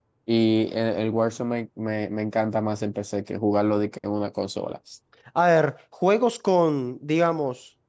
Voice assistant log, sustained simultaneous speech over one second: none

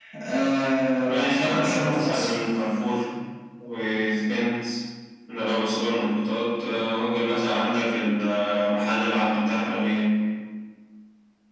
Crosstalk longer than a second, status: present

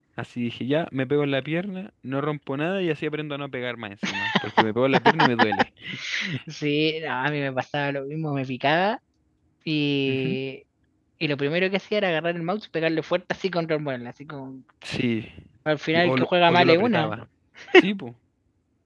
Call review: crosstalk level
present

